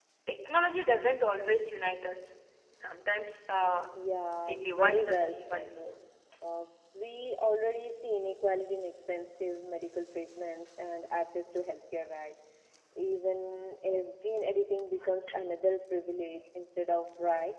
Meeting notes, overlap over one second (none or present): present